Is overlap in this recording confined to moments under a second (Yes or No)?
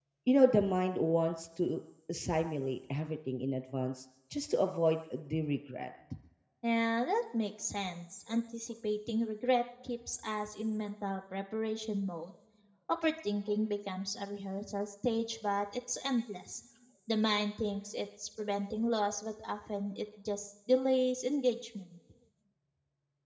Yes